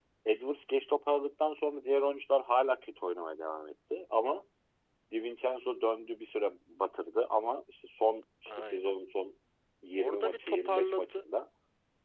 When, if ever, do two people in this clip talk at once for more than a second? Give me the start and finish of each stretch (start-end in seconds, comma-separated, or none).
10.0-11.2